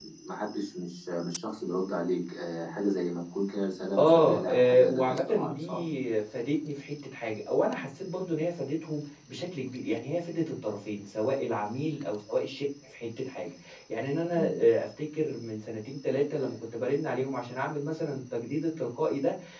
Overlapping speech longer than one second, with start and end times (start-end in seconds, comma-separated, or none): 4.0-5.8